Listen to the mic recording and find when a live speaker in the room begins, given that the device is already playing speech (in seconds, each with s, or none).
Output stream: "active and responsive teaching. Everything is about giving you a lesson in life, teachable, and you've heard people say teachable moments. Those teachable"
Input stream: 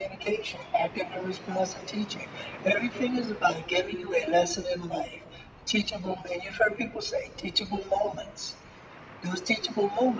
none